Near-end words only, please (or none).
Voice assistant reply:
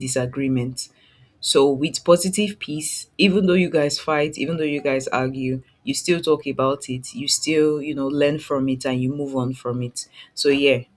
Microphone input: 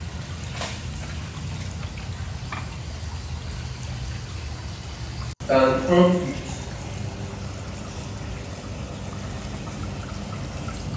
can conflict